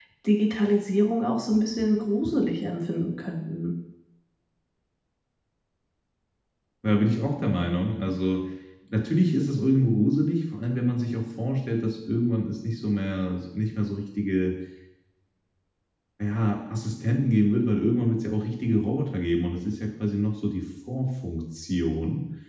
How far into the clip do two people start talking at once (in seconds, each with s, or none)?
none